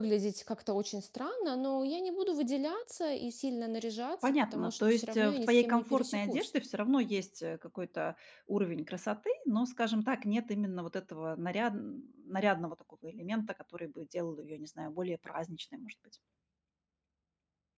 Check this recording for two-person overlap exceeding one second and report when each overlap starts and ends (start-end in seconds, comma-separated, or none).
4.2-6.5